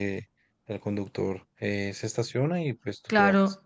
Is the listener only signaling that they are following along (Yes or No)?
No